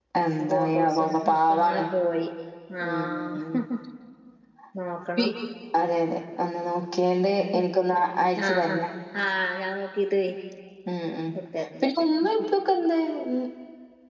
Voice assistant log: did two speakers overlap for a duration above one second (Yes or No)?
Yes